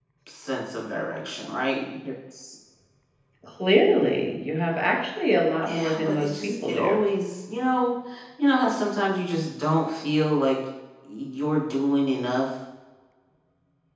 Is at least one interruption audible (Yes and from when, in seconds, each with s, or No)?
Yes, from 5.7 s